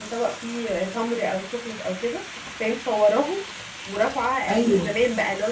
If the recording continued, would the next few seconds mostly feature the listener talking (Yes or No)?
No